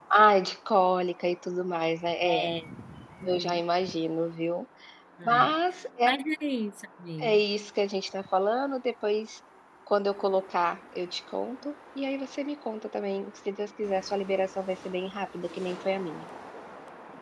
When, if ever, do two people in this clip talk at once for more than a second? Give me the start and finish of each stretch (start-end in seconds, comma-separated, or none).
none